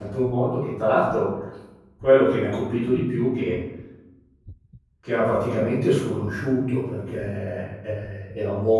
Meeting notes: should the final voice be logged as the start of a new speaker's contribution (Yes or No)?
No